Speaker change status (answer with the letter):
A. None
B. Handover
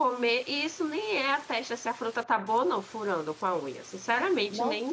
B